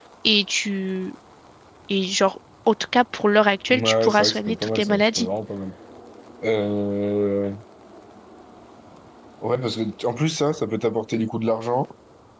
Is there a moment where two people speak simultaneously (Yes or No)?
Yes